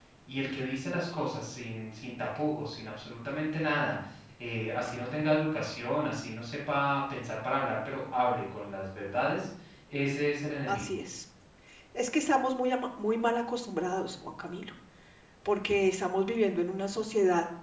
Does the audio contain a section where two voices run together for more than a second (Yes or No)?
No